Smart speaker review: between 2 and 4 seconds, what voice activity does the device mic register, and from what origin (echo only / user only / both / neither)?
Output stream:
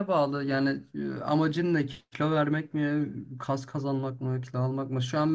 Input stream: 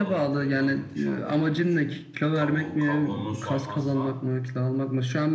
both